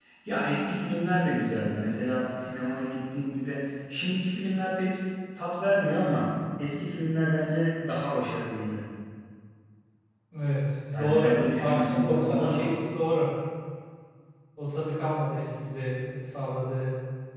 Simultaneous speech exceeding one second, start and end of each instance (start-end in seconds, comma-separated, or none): 11.0-12.7